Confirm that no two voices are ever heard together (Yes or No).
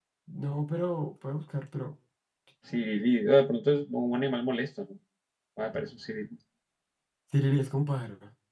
Yes